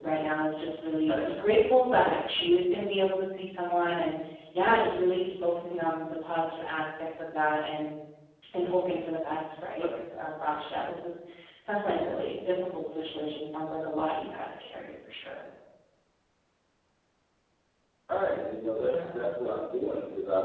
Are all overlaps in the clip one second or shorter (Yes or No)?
Yes